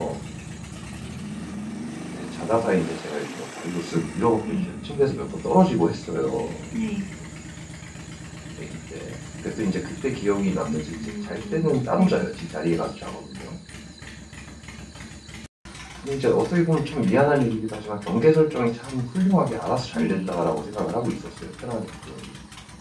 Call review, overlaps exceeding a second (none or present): present